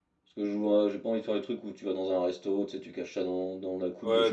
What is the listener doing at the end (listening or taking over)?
taking over